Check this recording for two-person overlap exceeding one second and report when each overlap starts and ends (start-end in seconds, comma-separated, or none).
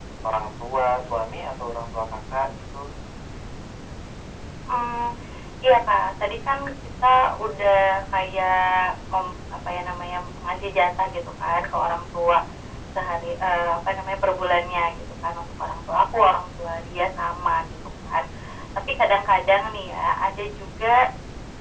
none